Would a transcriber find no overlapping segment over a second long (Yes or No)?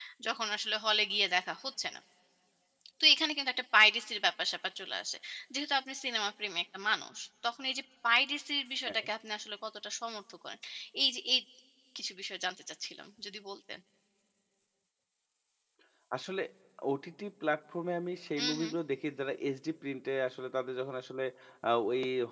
Yes